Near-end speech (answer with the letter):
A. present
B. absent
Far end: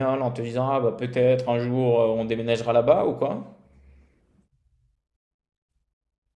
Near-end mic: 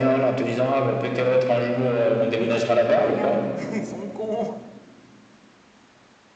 A